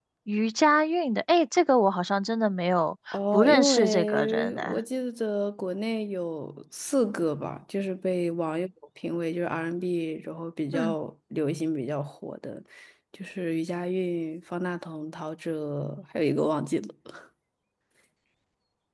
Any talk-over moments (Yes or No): Yes